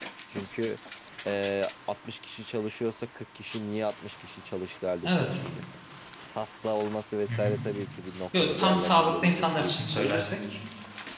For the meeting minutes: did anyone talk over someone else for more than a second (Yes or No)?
Yes